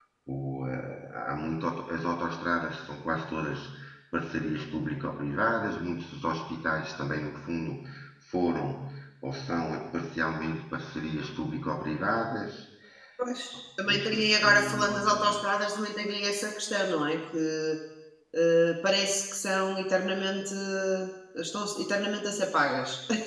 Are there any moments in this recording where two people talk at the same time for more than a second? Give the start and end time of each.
13.8-15.4

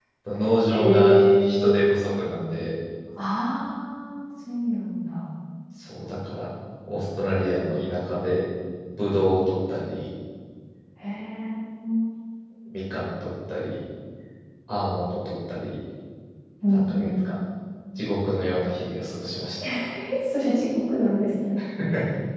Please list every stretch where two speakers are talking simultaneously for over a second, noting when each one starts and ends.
0.7-1.9

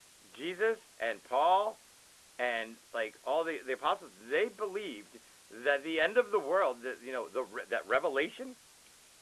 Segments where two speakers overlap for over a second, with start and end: none

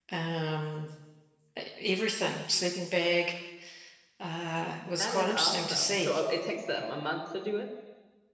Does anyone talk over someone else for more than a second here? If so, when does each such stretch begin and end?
5.0-6.2

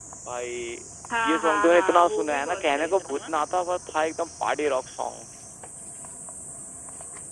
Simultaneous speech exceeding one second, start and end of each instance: 1.2-3.3

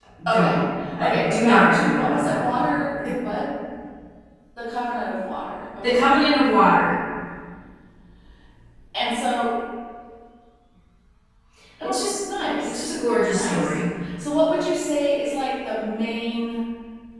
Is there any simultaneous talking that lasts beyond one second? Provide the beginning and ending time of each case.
1.0-2.6

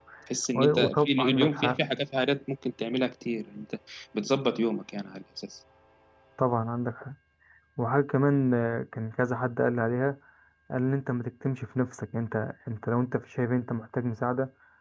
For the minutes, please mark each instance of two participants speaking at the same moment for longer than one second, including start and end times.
0.6-1.8

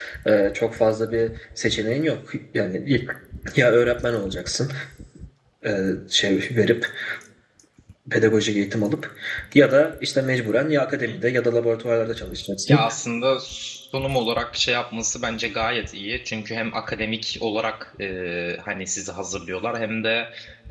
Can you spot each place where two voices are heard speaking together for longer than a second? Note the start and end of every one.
none

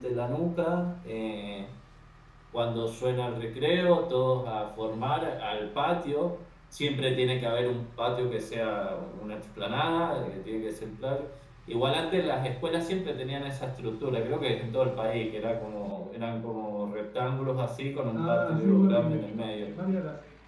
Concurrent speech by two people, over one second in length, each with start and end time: 18.1-19.7

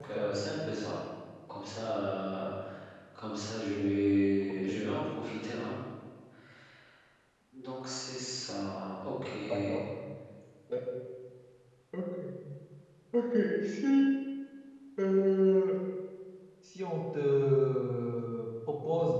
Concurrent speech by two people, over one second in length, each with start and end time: none

